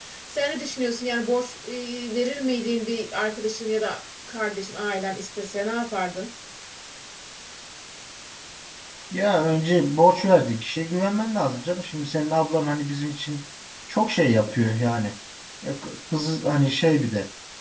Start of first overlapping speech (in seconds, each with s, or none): none